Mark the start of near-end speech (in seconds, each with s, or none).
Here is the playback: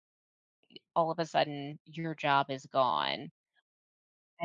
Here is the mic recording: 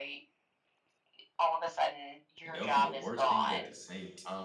2.4 s